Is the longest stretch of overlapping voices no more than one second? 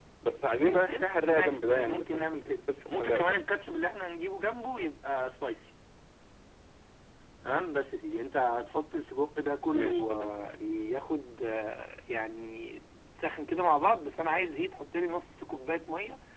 No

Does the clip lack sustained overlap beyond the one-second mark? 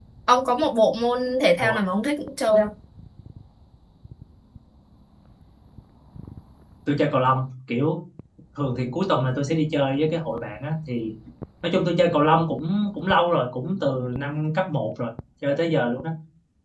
Yes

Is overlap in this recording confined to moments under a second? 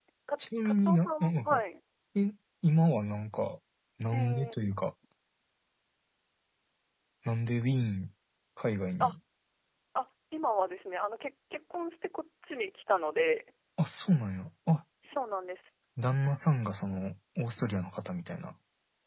No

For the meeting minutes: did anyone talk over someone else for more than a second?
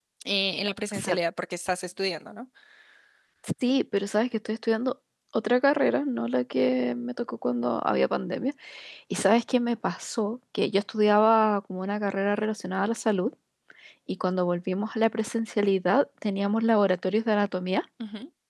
No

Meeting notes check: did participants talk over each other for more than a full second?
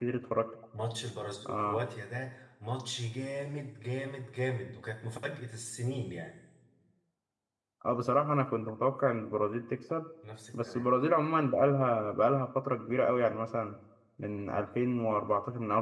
No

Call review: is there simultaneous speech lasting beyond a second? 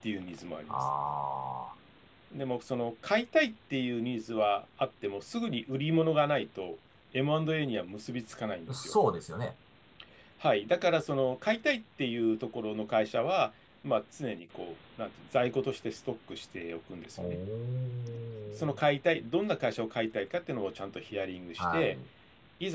No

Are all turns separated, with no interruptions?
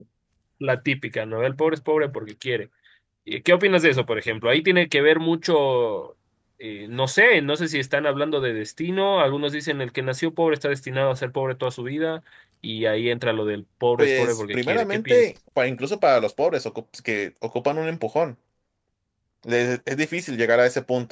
No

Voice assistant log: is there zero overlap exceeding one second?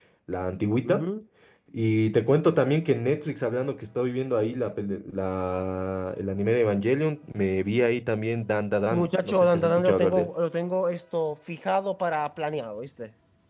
No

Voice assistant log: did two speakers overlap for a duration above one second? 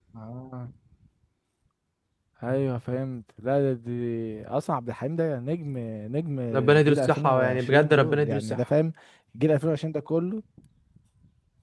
Yes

